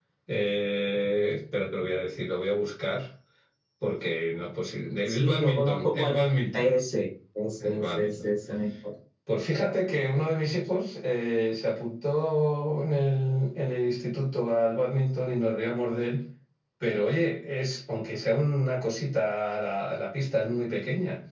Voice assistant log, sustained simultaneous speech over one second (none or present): present